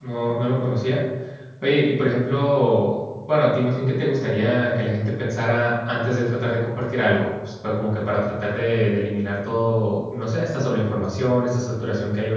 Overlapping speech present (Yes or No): No